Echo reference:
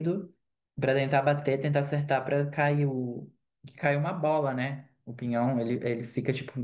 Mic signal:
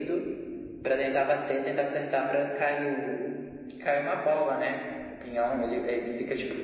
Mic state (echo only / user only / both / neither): echo only